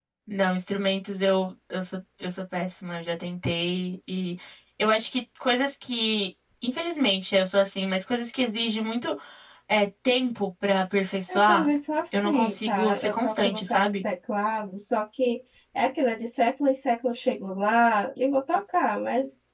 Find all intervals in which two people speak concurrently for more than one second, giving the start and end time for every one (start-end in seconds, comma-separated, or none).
12.1-14.0